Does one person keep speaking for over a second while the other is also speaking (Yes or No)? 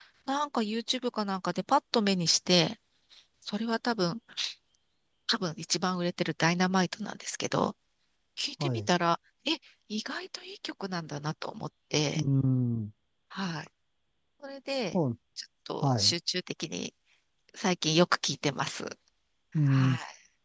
No